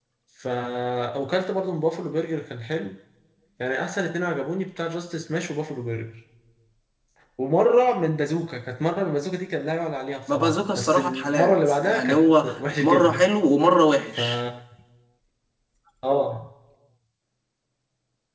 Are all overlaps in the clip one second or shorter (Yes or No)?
No